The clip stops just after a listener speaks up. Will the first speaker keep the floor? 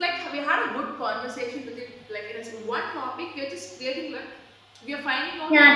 No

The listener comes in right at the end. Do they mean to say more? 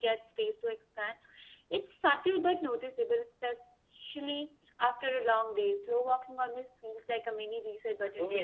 Yes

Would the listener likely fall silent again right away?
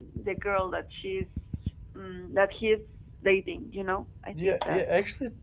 No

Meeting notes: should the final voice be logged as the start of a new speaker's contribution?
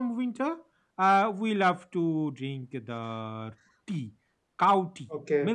Yes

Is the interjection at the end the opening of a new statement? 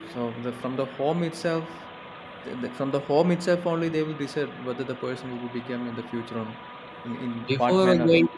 Yes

